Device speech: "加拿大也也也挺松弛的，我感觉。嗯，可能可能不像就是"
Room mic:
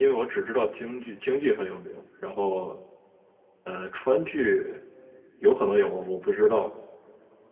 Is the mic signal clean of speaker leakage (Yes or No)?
Yes